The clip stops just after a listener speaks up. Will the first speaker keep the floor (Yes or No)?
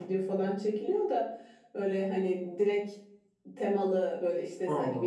Yes